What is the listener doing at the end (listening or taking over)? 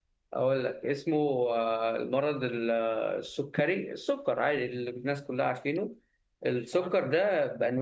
listening